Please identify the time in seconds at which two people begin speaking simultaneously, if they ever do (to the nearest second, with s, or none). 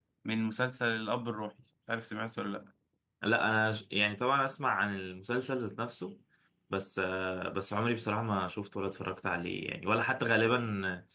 none